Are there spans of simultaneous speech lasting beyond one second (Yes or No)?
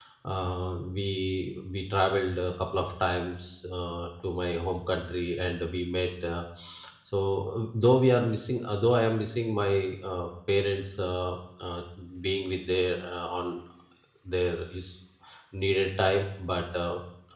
No